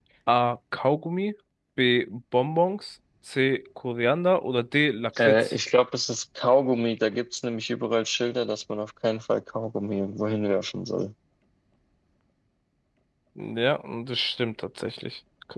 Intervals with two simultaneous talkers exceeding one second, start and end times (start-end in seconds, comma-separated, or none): none